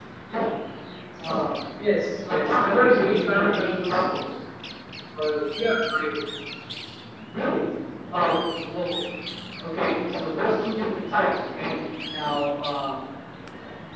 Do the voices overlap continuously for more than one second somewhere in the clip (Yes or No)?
Yes